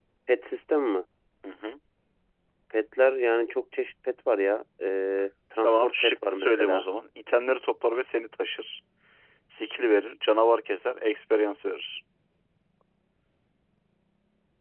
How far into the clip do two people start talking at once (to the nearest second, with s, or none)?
6 s